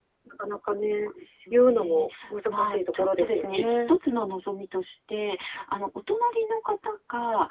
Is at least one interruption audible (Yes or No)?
Yes